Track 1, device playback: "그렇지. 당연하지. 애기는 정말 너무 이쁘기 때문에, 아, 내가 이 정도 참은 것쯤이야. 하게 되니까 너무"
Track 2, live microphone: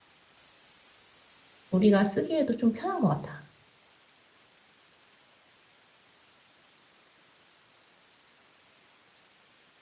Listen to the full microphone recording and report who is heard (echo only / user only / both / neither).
user only